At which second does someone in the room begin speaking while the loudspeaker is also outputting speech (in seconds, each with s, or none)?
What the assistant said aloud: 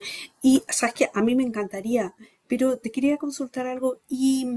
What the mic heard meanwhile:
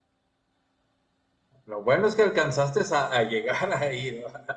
1.7 s